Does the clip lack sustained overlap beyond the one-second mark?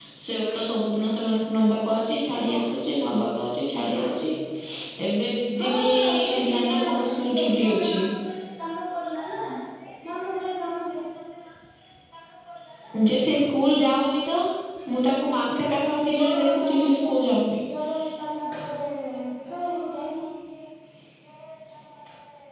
No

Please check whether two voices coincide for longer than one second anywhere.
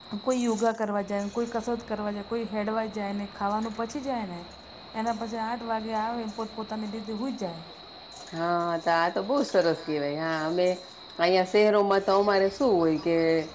No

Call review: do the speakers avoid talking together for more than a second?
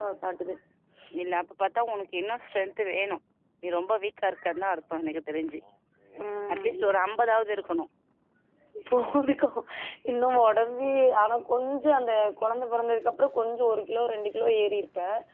Yes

